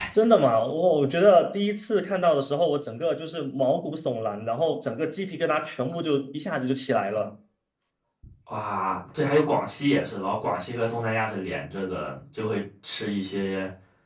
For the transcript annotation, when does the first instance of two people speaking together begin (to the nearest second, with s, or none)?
none